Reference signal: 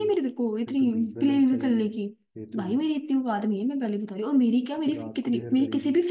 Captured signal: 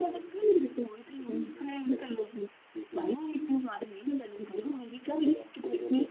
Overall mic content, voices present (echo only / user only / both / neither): echo only